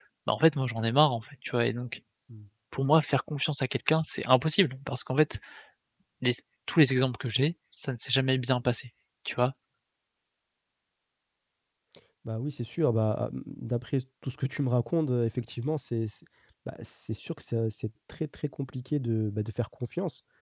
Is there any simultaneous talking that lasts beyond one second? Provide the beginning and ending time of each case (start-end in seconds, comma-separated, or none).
none